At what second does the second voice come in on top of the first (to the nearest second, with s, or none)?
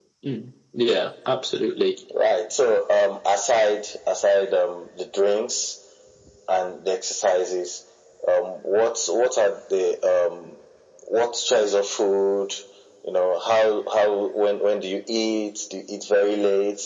none